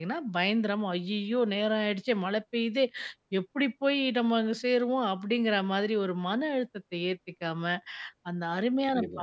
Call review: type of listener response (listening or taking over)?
listening